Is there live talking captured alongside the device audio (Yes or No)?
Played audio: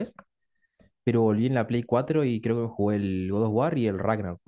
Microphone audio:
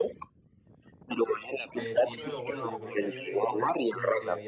Yes